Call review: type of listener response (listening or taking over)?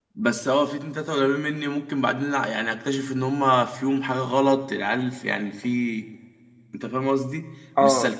listening